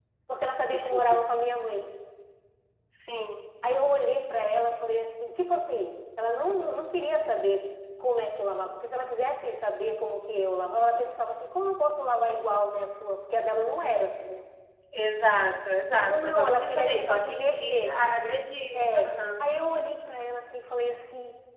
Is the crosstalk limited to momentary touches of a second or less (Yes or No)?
No